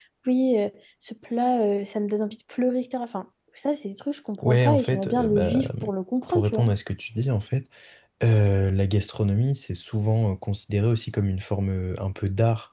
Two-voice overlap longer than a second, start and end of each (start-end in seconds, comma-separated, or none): 4.4-5.7